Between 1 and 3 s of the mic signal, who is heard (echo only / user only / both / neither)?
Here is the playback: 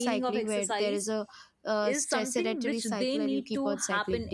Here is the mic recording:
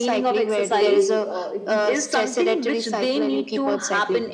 both